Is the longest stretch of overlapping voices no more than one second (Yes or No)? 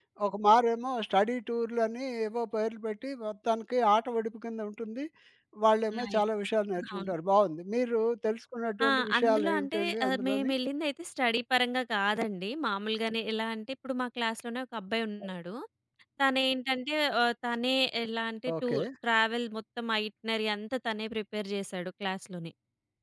No